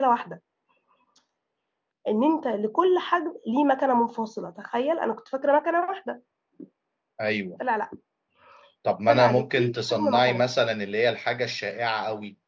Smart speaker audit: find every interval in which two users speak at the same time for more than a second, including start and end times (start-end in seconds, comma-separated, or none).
9.1-10.4